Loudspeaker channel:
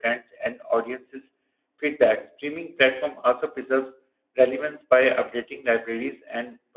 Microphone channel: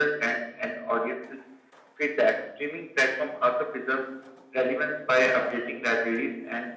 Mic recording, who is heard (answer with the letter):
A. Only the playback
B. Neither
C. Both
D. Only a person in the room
A